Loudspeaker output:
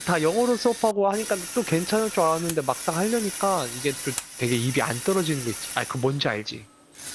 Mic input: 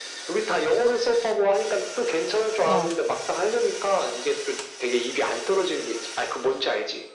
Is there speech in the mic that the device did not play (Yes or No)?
Yes